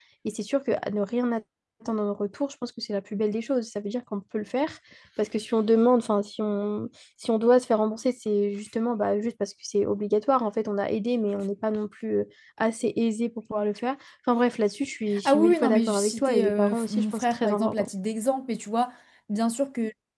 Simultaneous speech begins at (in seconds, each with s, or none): 15.1 s